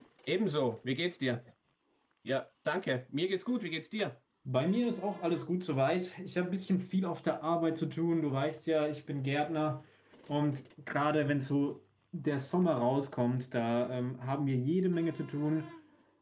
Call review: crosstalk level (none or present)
none